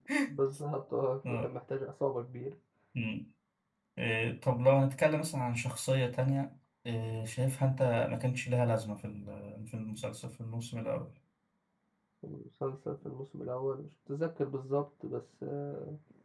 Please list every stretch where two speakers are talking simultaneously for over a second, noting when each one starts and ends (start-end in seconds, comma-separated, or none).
none